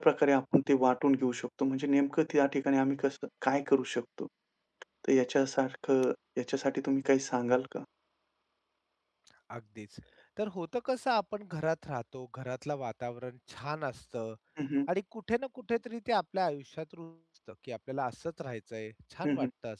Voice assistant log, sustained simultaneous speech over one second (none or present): none